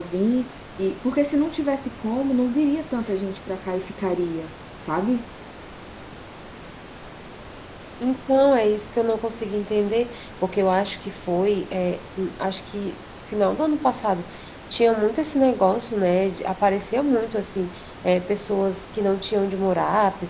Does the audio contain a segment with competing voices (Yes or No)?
No